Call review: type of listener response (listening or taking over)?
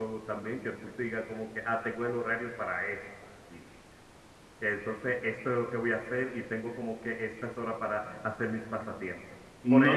listening